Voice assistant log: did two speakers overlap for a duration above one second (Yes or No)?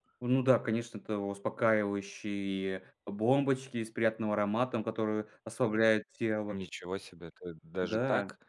No